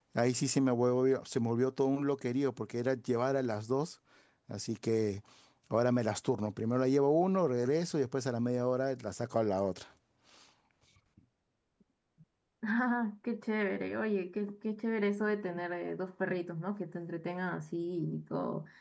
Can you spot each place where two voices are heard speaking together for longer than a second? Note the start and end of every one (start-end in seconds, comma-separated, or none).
none